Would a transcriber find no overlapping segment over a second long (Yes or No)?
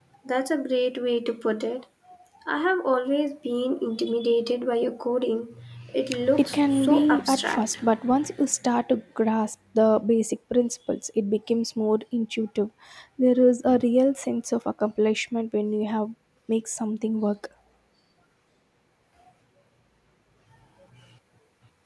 No